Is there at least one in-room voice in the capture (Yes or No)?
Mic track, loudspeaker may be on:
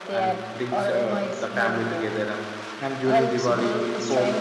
Yes